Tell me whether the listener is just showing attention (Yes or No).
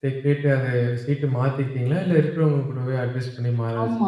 No